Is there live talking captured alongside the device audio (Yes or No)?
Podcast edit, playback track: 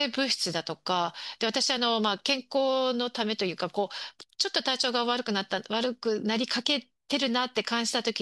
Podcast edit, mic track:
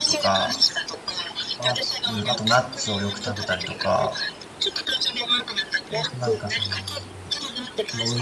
Yes